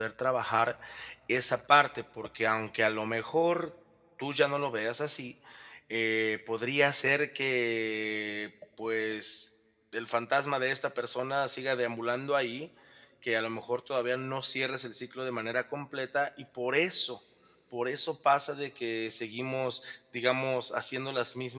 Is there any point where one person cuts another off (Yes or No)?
No